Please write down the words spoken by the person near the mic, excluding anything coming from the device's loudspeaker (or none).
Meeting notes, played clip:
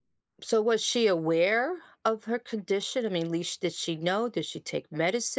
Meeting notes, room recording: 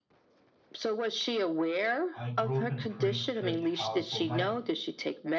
I grew up in a pretty strict household, my